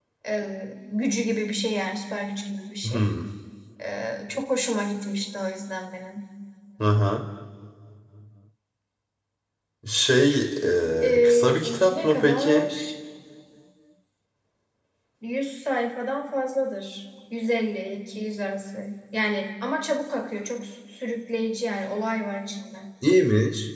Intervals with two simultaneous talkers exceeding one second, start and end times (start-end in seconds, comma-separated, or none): 11.2-12.7